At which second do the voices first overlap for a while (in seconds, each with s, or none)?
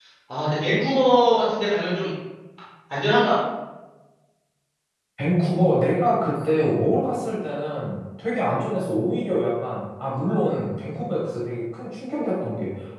none